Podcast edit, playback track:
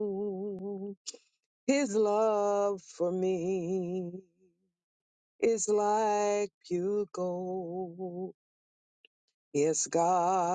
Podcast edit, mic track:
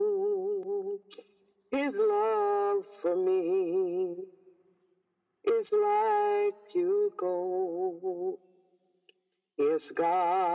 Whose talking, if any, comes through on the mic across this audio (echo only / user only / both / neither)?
echo only